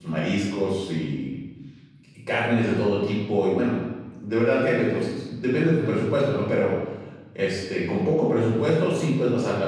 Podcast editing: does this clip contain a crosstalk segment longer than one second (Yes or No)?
No